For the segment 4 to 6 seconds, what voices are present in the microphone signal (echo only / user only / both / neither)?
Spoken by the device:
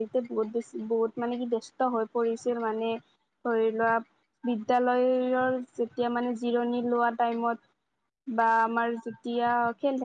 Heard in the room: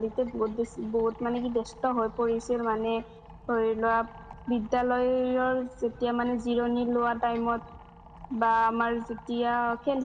echo only